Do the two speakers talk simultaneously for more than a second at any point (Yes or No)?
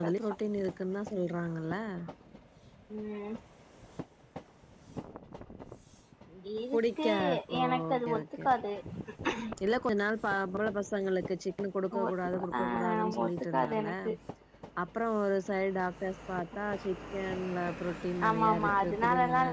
Yes